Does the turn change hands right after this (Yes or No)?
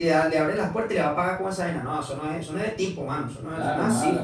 Yes